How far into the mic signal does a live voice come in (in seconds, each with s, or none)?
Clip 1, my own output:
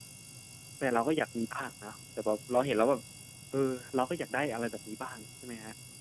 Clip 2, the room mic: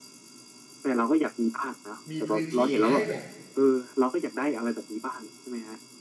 2.1 s